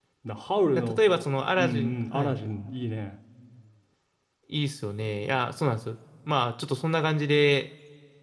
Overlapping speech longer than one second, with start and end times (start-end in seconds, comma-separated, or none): 0.7-2.4